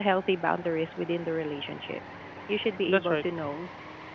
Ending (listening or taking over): listening